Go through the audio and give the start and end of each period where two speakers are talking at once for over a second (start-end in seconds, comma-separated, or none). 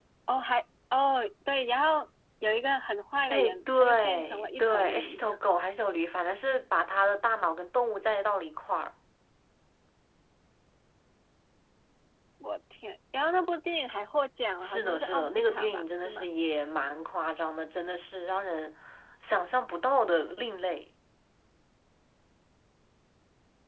3.3-5.2, 14.6-16.2